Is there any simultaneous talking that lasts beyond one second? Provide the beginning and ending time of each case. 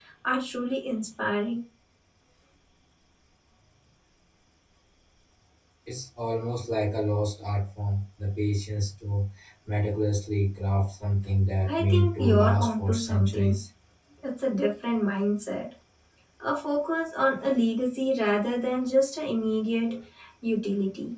11.7-13.6

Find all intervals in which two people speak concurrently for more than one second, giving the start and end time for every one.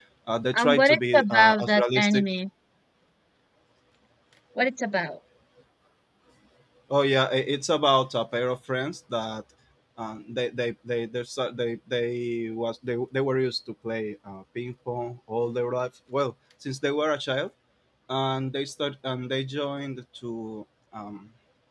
0.5-2.2

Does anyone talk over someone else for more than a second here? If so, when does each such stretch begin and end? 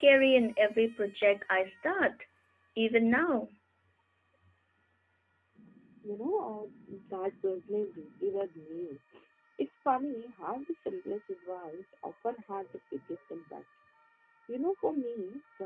none

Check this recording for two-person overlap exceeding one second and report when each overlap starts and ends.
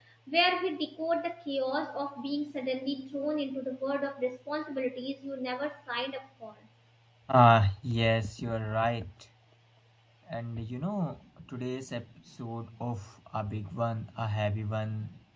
none

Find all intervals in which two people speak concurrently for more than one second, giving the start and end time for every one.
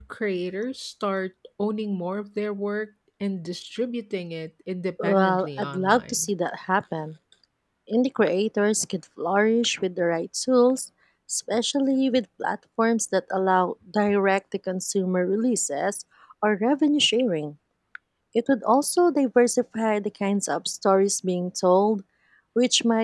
5.0-6.3

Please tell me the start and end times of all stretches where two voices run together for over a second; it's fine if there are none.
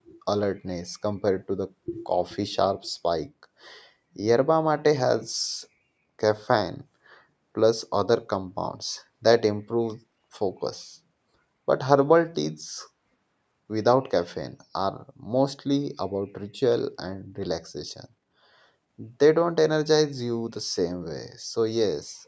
none

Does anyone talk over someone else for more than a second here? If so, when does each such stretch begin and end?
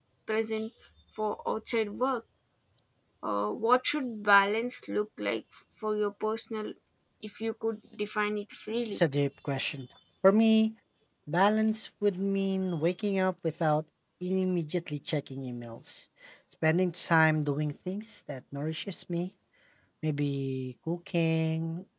none

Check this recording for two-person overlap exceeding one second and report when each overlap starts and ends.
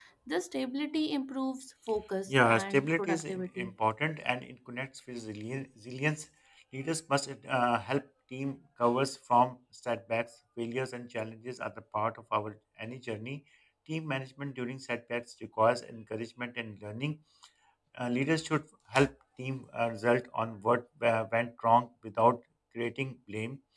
2.3-3.7

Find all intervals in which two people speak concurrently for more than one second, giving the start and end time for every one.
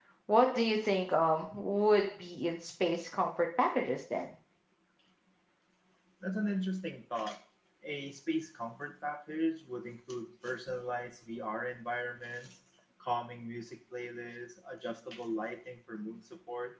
none

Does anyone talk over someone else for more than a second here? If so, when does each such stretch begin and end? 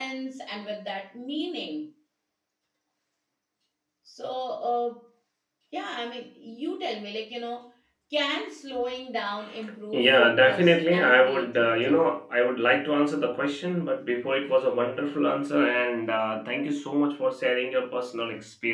9.9-12.0

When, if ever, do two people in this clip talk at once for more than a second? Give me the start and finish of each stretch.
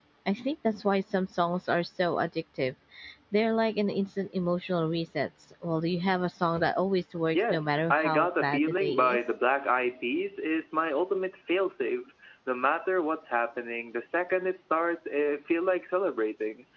7.3-9.2

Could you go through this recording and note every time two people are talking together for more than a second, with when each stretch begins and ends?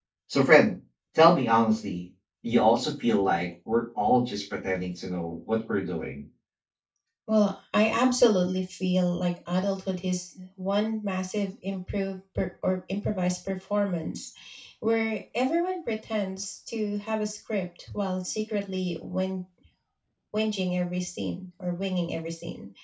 none

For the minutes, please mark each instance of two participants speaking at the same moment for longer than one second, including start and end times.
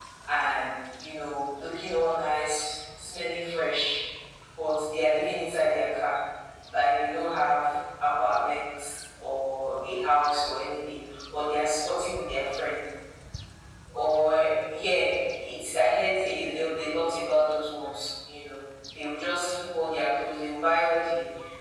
none

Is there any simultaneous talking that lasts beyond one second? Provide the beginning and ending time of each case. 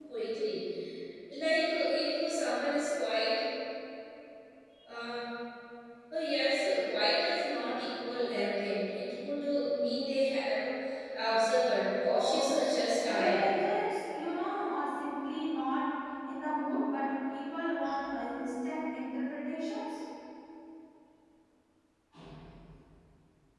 12.0-13.4

